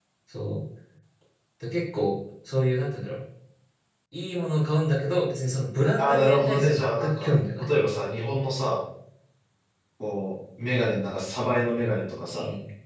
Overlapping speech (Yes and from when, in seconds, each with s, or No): Yes, from 6.0 s